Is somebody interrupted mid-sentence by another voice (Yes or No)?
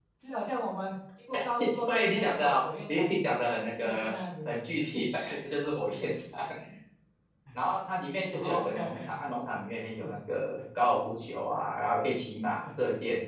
Yes